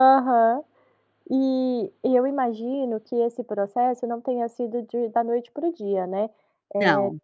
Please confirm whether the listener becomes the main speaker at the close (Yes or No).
No